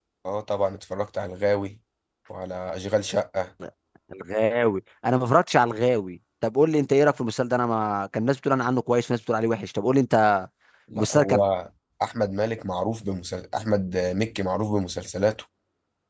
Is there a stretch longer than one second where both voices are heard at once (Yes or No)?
No